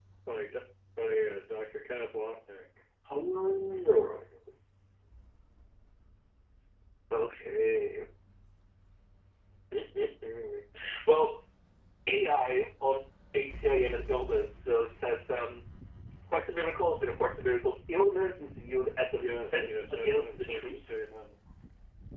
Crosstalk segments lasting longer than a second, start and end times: 19.2-21.0

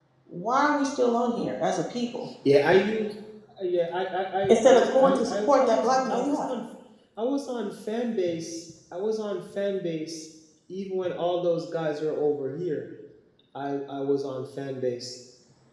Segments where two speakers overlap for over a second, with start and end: 4.5-6.5

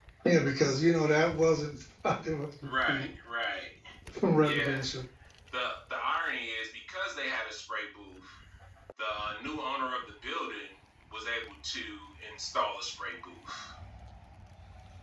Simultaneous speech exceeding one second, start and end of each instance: none

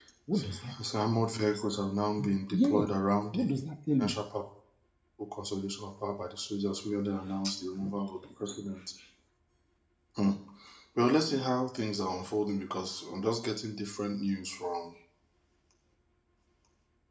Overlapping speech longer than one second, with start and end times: none

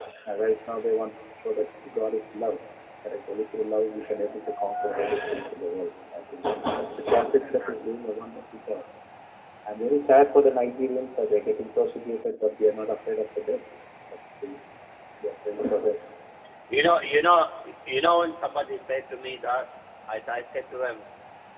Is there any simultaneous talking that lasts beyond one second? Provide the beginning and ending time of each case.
none

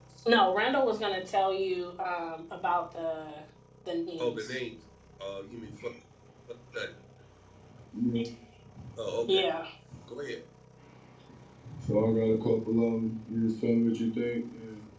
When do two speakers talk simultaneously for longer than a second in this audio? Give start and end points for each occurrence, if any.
none

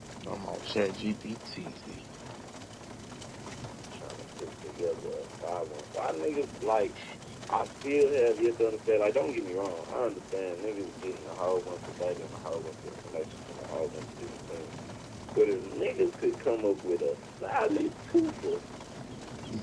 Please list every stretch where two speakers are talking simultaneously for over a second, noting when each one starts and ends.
none

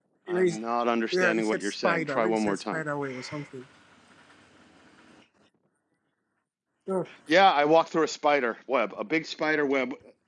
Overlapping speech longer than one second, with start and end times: 1.1-2.8

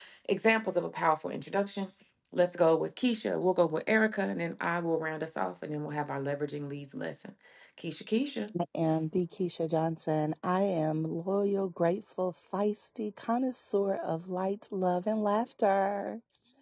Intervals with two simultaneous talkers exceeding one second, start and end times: none

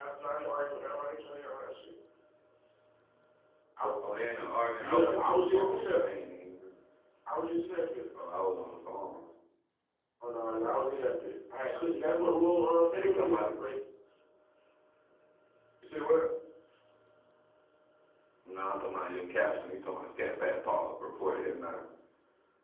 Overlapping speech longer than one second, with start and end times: 4.8-6.1

